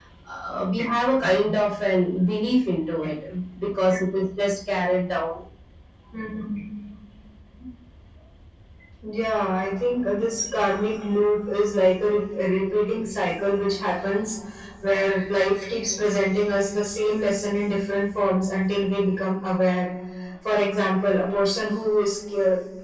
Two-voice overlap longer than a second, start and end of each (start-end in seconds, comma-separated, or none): none